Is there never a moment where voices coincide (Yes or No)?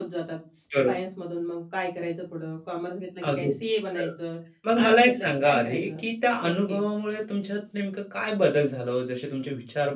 No